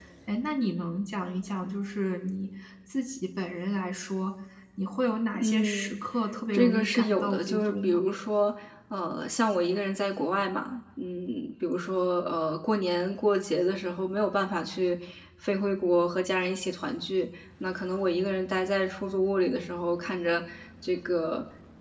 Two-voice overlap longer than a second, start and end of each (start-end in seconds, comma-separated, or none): 6.5-8.0